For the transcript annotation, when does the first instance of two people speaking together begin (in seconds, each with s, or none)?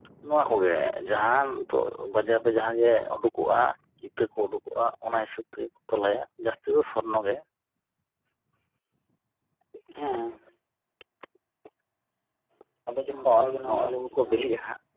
13.1 s